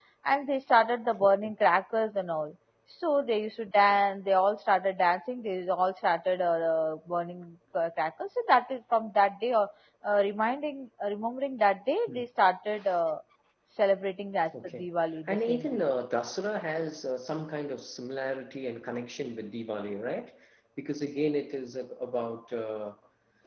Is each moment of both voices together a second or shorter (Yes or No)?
Yes